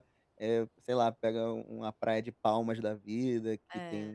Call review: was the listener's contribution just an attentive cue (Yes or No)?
Yes